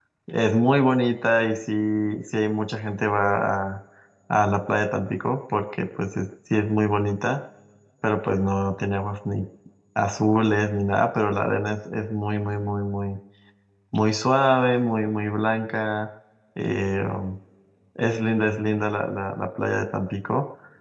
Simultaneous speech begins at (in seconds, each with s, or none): none